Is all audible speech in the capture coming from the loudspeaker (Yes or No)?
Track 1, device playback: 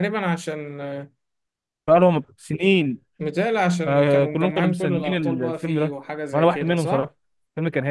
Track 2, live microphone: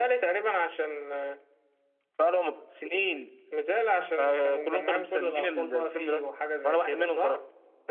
Yes